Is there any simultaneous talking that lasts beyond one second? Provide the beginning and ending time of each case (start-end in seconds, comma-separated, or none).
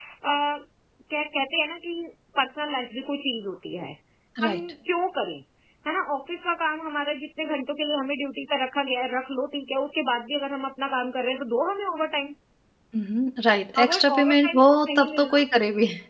13.8-15.4